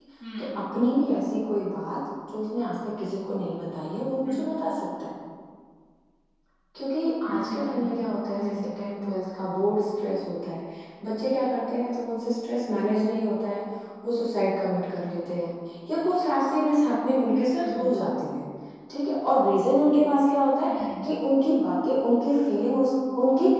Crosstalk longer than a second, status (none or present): present